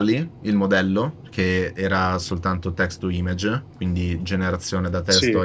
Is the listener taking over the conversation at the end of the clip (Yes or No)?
No